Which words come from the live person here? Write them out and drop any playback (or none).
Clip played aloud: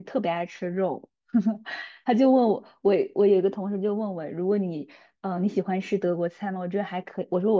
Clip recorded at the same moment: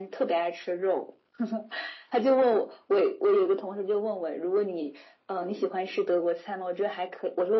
none